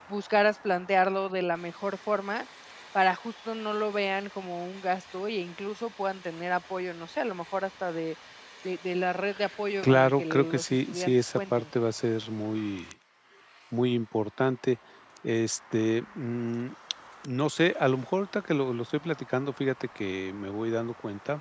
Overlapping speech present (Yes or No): Yes